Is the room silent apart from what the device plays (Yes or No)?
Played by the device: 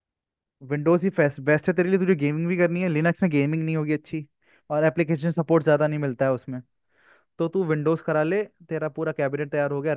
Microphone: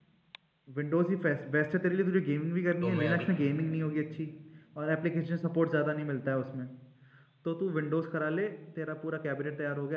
No